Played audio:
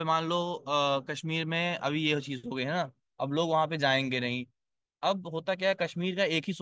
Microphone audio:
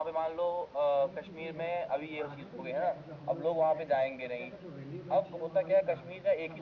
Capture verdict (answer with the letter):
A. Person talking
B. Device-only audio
A